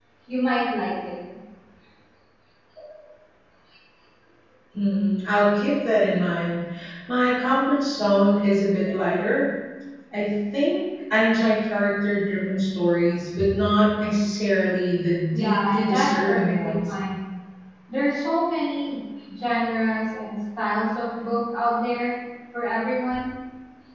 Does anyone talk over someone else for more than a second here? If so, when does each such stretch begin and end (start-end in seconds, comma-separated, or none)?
15.3-16.8